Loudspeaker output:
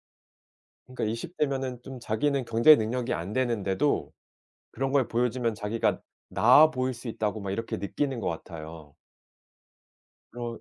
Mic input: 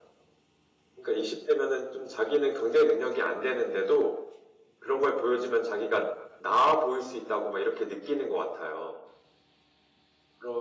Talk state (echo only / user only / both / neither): echo only